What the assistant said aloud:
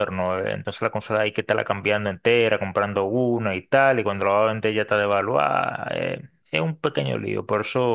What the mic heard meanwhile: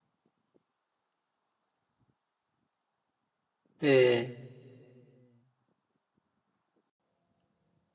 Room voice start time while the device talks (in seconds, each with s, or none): 3.8 s